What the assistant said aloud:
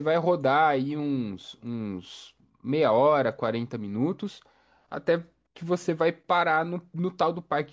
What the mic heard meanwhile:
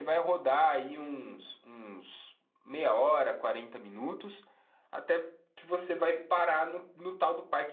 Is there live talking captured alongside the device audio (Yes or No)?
No